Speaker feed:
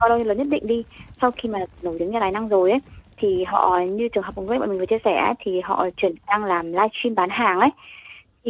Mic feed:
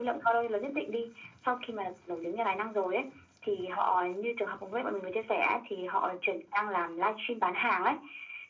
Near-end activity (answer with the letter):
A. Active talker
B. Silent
B